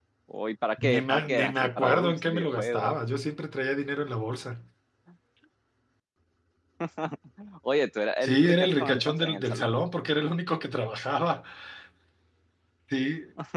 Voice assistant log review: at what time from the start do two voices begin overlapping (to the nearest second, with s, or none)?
1 s